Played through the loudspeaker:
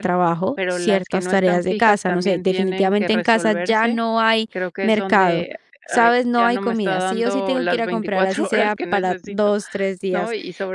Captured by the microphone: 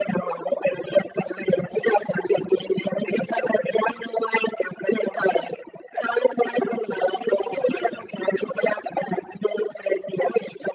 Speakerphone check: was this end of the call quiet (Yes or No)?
Yes